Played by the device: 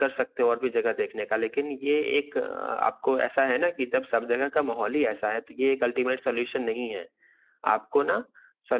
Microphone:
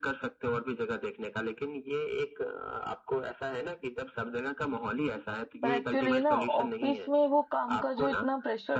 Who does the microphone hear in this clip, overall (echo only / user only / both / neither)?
both